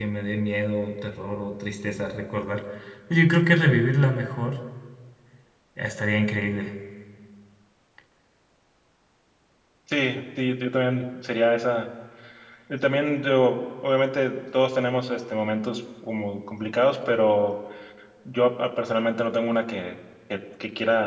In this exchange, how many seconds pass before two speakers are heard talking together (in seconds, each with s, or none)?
none